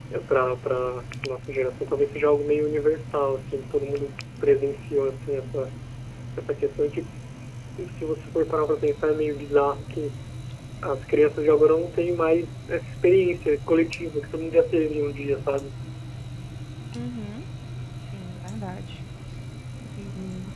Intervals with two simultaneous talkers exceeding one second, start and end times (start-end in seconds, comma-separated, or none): none